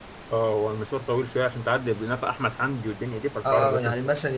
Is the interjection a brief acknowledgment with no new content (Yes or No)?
No